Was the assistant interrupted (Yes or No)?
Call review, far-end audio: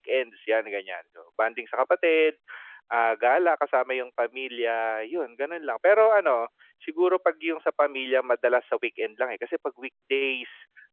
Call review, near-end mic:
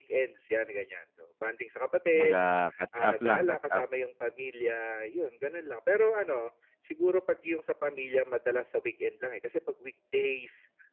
Yes